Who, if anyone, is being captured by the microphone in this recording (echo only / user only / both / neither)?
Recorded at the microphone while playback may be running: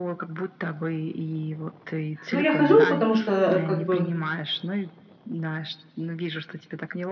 both